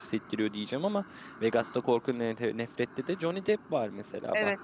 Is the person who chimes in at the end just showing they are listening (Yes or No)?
No